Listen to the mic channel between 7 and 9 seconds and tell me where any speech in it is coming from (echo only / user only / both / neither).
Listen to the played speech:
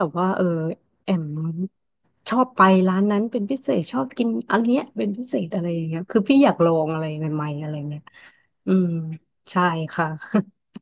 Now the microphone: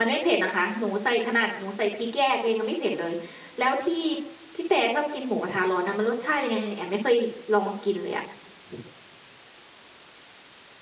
user only